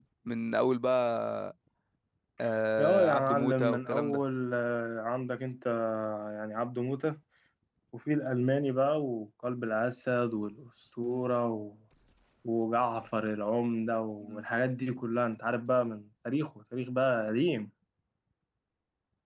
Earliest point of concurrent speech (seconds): 3 s

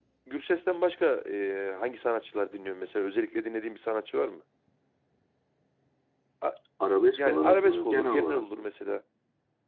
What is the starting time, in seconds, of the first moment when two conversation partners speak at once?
7 s

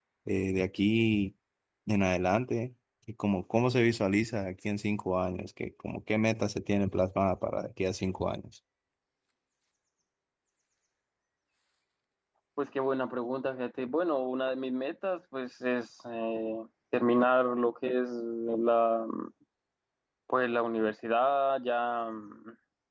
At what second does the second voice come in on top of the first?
none

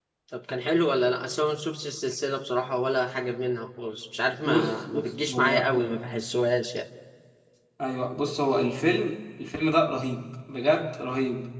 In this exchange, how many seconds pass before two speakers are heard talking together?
4 s

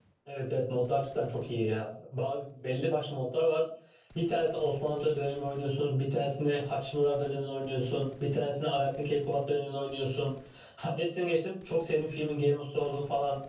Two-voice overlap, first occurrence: none

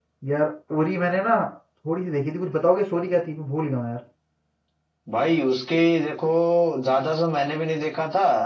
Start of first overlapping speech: none

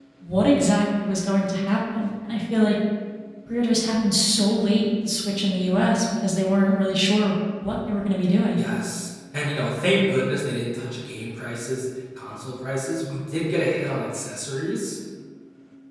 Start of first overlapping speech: none

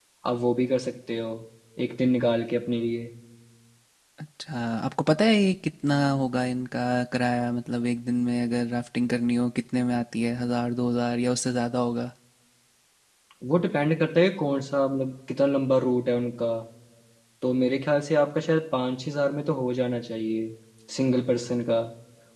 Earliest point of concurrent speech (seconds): none

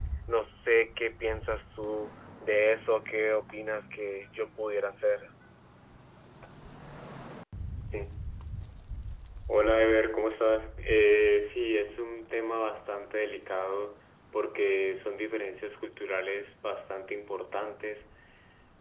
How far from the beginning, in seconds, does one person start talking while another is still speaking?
none

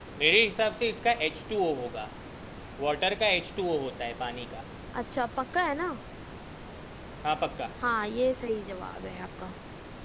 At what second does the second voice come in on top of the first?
none

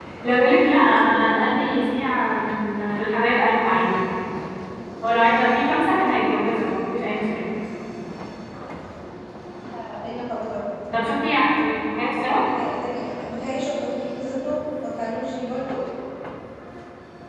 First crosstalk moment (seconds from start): none

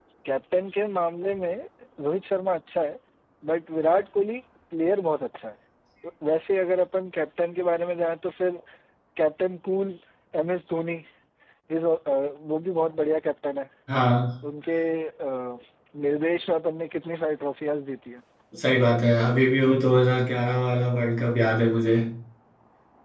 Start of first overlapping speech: none

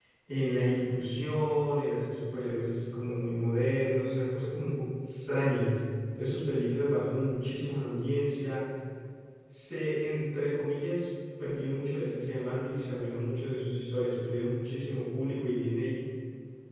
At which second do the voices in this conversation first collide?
none

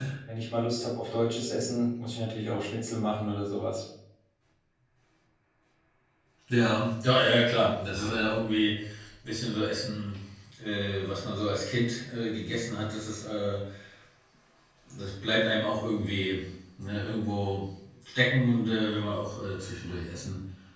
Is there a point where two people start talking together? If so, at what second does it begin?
none

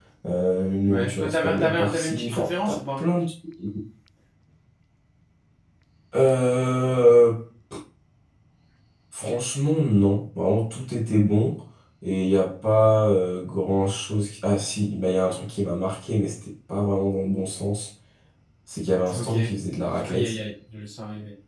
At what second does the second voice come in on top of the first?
1 s

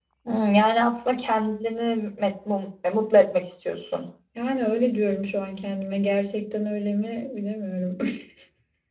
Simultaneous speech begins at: none

